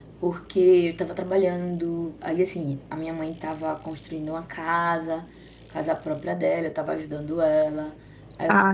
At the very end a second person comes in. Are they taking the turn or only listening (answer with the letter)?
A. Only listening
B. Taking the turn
B